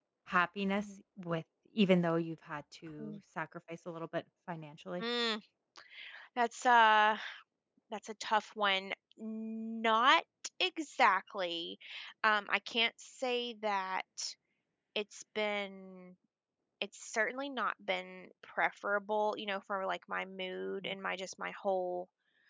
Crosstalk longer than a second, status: none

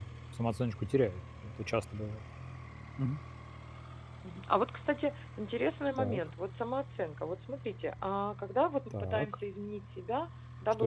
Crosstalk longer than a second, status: none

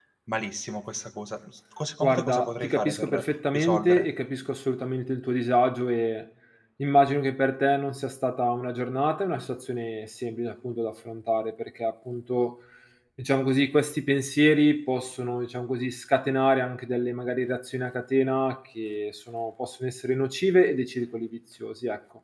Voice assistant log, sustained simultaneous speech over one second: present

